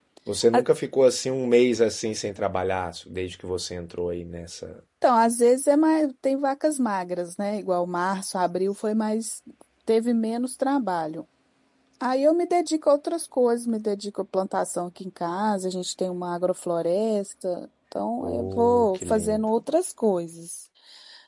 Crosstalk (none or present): present